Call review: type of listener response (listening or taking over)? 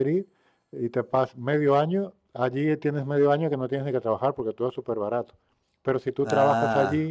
listening